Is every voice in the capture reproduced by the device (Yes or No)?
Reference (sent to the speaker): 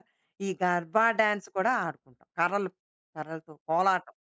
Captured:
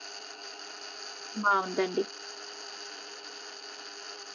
No